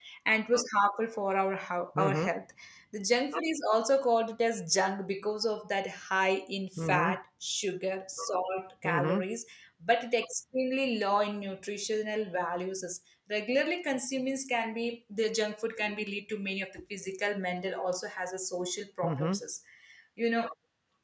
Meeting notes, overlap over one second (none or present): none